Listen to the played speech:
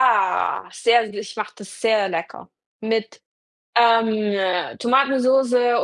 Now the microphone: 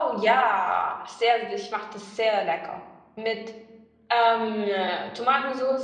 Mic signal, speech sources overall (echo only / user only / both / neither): echo only